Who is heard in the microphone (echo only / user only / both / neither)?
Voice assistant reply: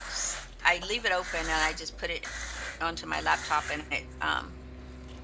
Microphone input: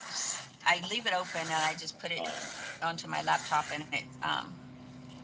both